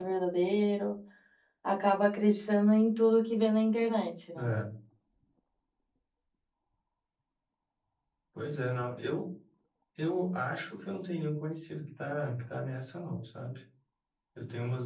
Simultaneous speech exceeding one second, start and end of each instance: none

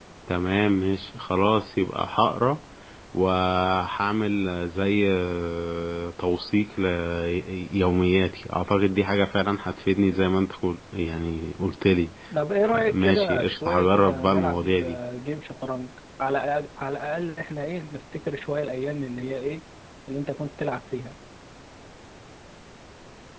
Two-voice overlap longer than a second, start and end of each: 12.8-15.0

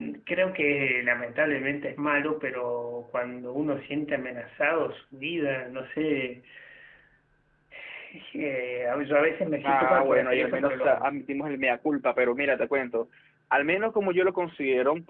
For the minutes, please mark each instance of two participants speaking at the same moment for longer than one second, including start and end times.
9.6-11.2

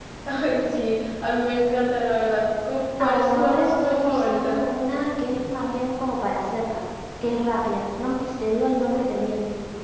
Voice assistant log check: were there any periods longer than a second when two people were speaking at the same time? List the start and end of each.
3.0-4.6

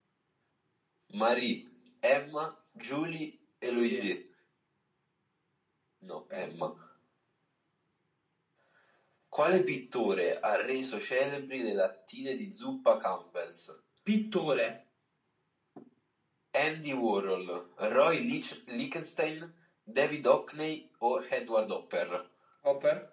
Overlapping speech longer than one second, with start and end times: none

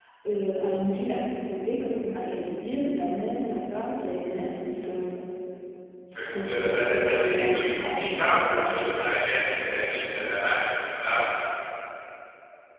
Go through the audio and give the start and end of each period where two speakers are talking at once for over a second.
6.3-8.8

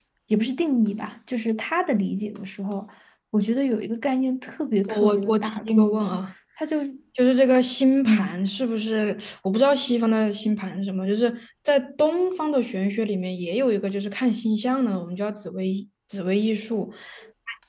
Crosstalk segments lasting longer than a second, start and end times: 4.9-6.2

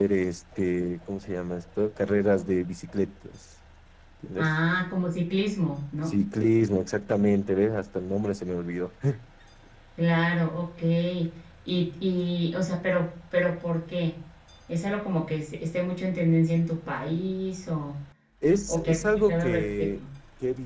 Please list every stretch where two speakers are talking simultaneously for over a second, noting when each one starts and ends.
18.7-20.0

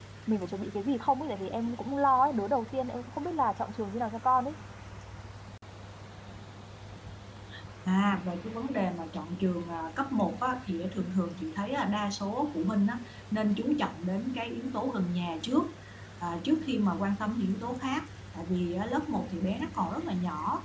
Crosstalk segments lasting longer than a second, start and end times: none

